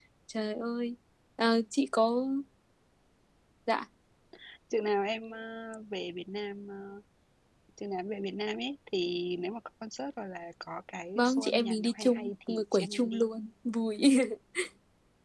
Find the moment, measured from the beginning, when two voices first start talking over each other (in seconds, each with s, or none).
11.2 s